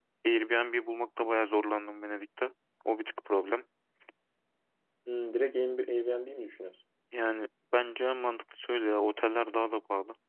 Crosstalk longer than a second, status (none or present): none